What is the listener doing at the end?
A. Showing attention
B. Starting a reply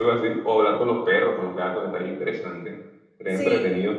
A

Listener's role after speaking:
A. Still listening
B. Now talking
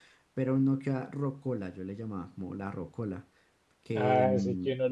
B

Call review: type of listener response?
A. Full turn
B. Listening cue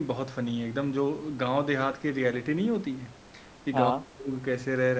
B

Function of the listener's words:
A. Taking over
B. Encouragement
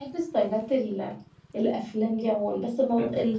B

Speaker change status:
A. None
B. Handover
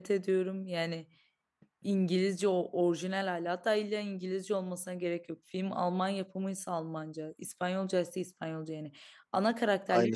A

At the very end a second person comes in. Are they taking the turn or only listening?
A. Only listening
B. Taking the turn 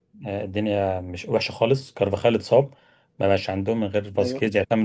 A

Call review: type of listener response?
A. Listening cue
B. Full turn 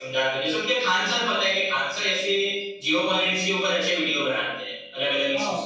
B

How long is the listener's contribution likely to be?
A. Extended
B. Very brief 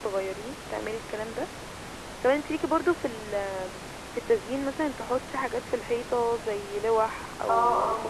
A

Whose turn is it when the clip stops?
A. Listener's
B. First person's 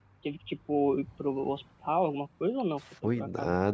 A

